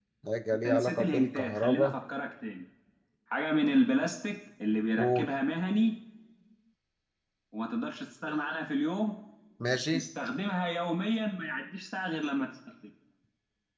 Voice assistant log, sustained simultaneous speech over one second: present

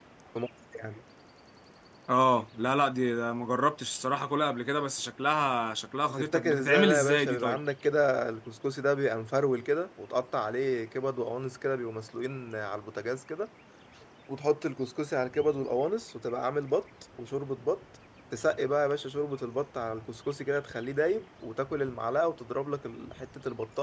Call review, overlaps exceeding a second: present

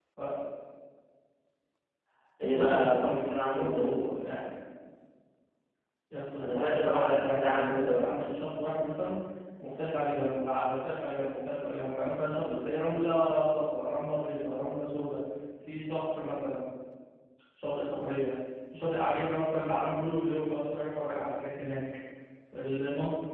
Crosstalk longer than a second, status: present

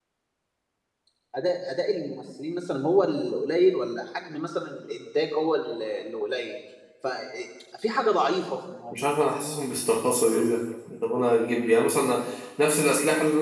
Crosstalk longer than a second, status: none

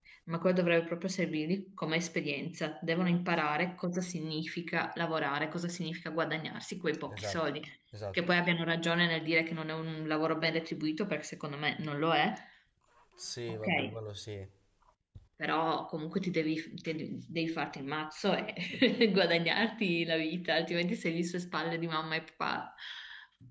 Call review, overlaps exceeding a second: none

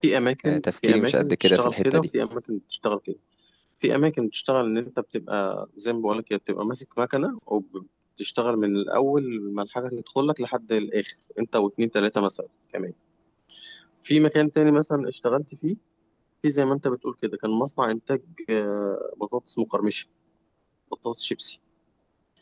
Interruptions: present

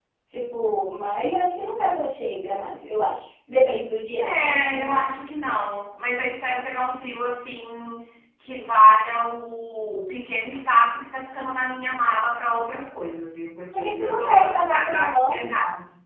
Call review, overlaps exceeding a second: present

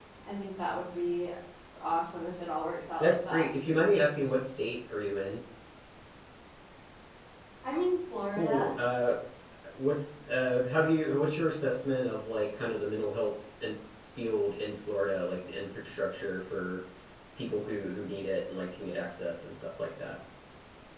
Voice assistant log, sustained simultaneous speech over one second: none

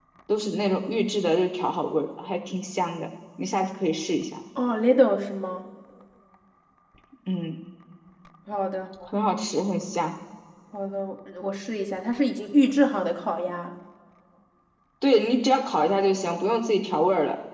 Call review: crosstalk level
none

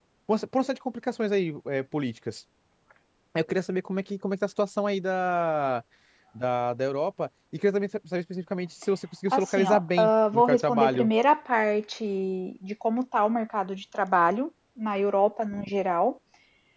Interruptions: present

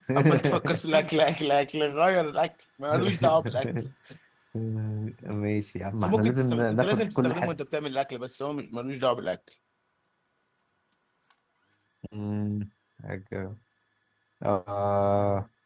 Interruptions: present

